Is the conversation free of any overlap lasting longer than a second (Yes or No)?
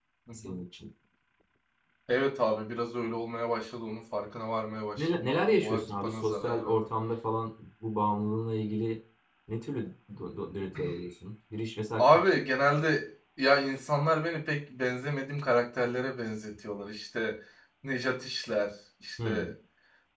No